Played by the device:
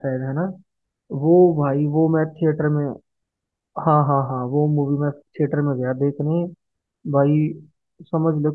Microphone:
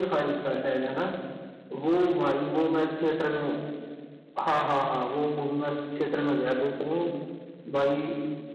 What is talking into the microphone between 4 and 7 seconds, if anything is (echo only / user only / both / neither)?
echo only